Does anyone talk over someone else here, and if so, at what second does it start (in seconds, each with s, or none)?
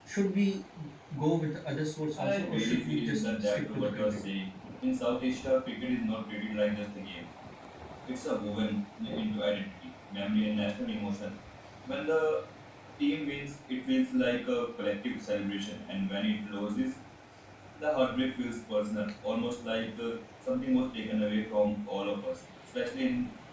2.2 s